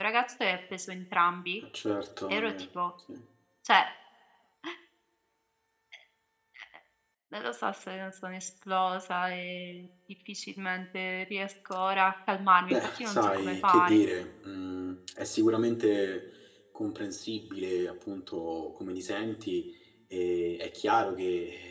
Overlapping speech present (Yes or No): Yes